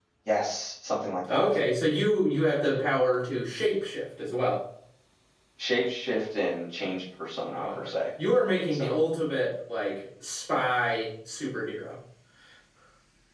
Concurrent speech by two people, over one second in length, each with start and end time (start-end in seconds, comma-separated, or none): none